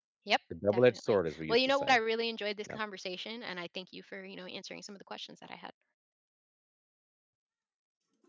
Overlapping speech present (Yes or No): Yes